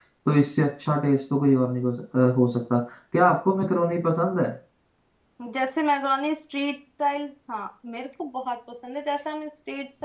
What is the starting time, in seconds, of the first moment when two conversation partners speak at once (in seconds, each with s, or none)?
none